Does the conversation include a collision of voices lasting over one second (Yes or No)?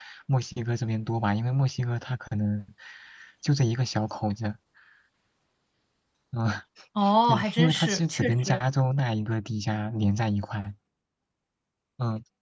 Yes